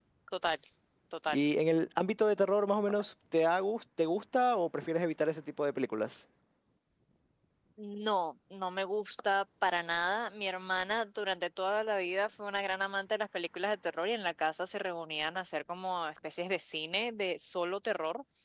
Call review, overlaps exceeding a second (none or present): none